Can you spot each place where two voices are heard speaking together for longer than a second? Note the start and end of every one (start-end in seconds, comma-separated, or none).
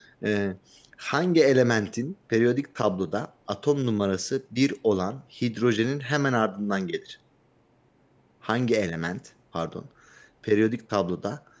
none